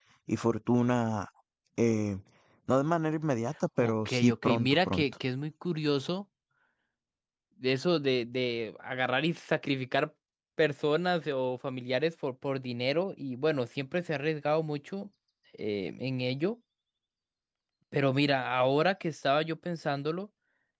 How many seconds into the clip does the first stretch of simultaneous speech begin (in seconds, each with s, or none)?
3.8 s